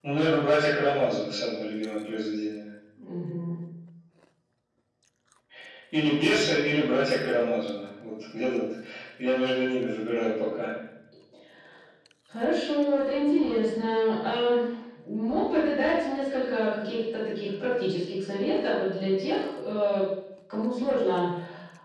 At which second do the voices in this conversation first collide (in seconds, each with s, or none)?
none